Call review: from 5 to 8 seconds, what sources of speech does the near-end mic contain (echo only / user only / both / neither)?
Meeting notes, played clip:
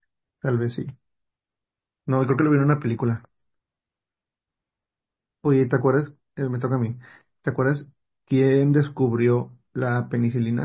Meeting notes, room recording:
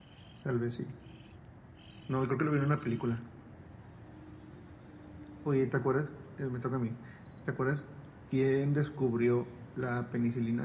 echo only